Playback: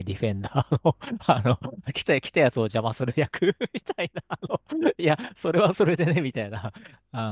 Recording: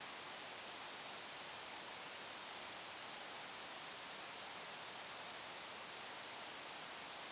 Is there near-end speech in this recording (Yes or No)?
No